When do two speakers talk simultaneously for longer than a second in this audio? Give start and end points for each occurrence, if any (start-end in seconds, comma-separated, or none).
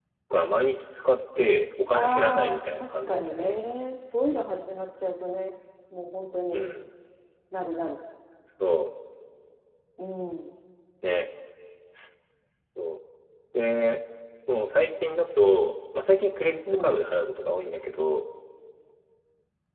1.9-3.6